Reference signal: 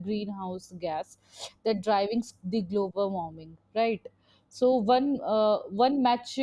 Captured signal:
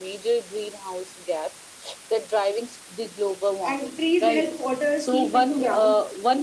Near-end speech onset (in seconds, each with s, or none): 3.7 s